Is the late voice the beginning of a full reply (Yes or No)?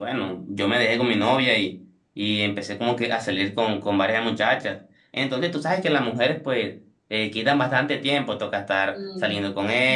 No